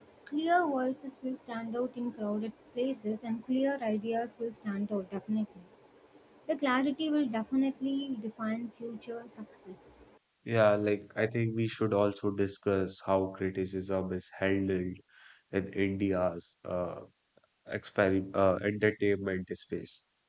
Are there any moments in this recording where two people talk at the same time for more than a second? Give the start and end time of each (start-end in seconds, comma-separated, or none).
none